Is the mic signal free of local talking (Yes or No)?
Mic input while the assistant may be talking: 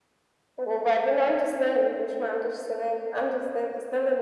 Yes